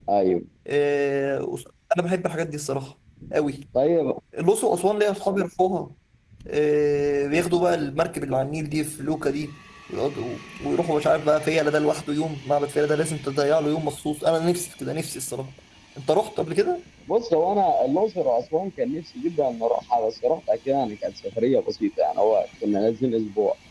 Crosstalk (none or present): none